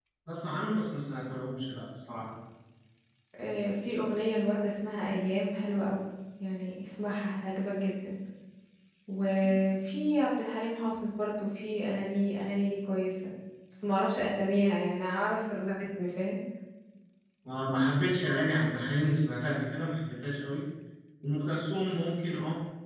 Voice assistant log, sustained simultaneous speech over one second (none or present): none